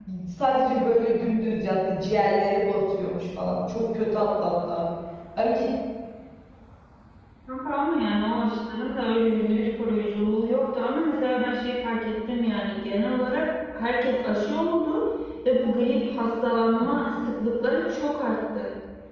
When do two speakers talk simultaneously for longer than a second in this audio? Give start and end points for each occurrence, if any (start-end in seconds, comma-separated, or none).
none